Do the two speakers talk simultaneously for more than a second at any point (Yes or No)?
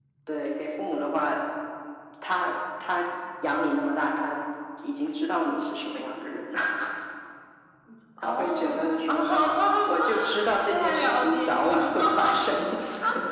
Yes